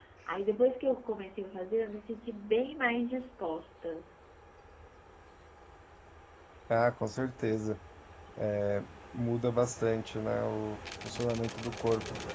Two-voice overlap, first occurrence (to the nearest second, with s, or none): none